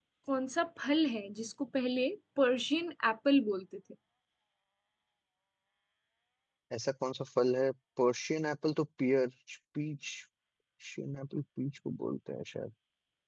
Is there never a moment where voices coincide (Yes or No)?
Yes